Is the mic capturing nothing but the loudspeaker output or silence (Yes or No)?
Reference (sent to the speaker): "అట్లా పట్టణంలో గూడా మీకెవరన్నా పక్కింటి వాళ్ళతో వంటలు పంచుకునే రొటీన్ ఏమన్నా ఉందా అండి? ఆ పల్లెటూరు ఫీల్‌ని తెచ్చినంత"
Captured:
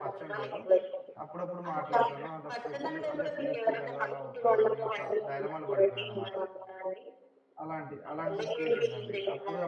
No